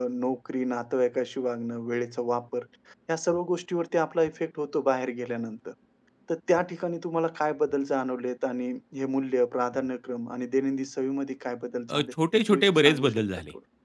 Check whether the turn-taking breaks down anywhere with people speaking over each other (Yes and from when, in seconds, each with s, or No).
Yes, from 11.9 s